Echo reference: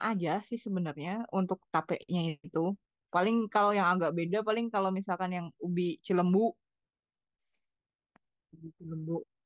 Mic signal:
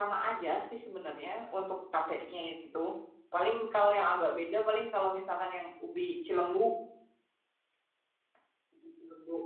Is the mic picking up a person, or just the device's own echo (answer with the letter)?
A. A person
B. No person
B